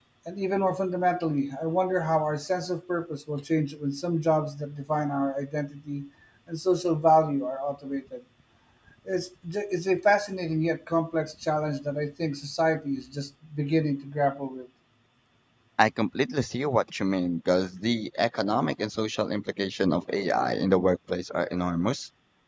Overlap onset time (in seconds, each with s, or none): none